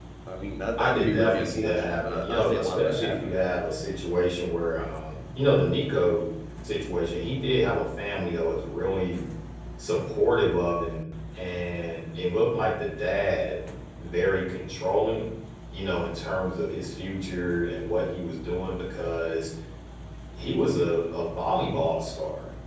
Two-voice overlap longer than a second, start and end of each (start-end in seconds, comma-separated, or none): 0.8-3.4